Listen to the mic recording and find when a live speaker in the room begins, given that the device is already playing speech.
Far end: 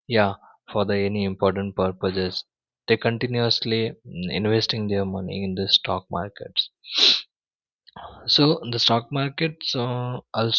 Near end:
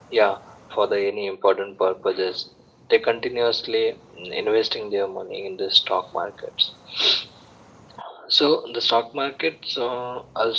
none

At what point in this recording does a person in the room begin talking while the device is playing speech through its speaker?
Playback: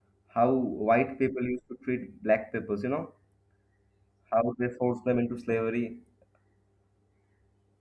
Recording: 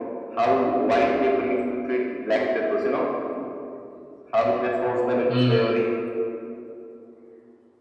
5 s

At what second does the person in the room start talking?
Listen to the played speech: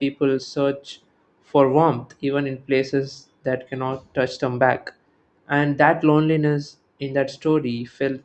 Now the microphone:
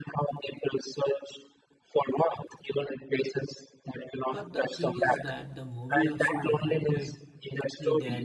4 s

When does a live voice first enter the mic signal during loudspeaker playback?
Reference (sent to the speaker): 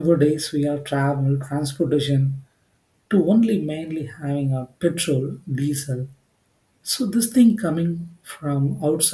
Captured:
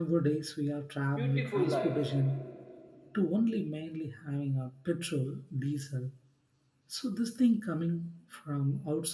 1 s

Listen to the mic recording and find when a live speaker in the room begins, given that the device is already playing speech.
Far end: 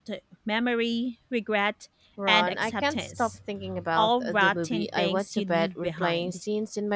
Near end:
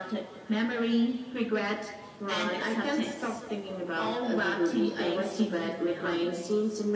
none

